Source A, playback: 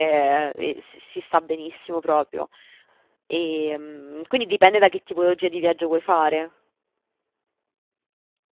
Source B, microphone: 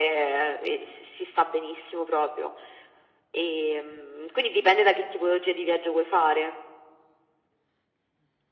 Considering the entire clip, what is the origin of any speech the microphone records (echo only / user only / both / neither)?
echo only